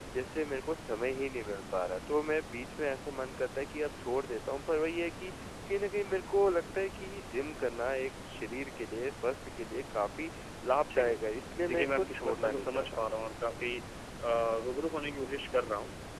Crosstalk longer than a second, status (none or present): present